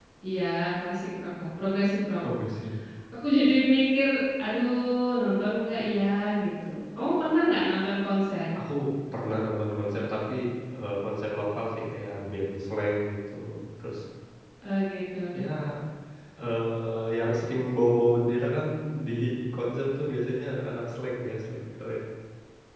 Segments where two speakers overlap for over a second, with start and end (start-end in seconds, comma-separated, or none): none